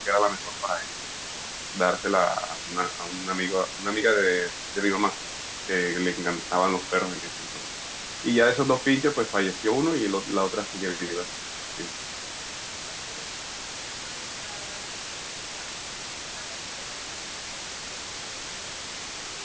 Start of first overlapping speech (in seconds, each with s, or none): none